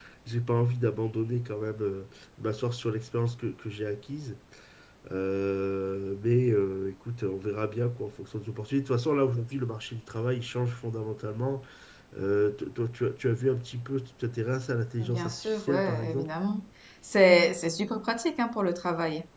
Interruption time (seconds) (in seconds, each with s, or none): 15.0 s